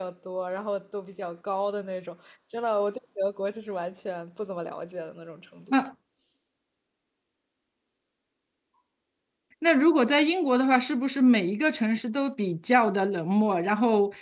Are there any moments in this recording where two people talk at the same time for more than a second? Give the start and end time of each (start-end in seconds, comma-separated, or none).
none